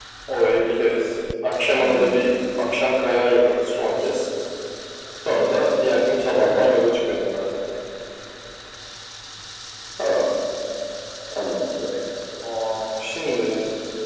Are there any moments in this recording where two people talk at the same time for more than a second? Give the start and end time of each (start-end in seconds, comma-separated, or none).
none